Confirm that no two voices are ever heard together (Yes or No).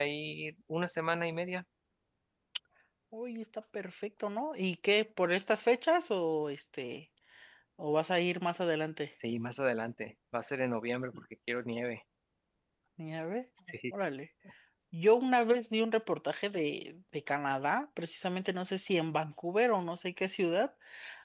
Yes